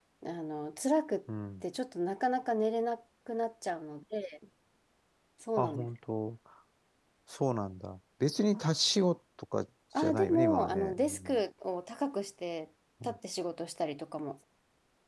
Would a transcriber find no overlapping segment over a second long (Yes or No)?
No